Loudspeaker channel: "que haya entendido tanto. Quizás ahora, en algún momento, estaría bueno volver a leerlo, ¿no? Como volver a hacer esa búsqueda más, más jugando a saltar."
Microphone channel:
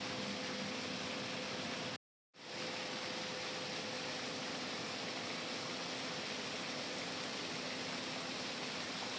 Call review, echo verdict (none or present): none